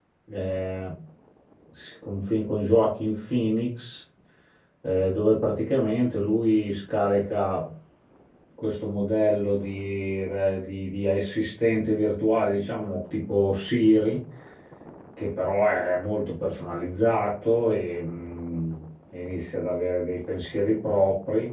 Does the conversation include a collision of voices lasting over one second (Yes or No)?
No